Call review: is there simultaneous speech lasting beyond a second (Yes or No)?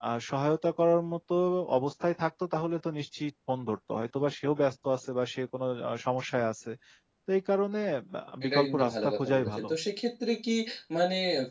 Yes